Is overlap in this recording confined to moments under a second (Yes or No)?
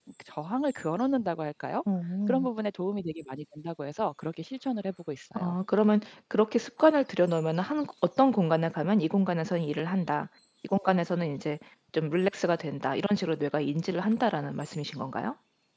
Yes